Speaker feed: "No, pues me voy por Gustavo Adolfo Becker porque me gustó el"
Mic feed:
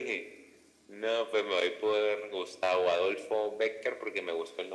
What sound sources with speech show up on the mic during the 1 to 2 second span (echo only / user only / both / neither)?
echo only